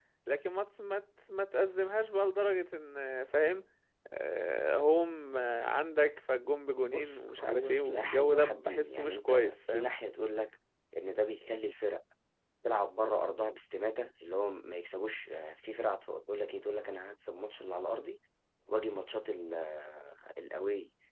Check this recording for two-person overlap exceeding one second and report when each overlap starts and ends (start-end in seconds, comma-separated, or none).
6.8-9.9